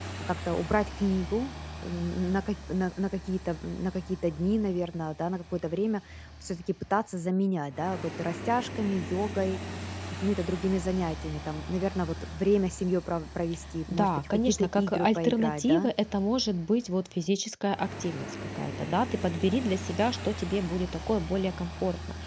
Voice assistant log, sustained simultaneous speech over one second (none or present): present